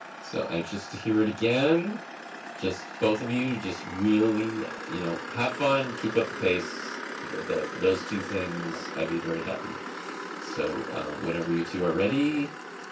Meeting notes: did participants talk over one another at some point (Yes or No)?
No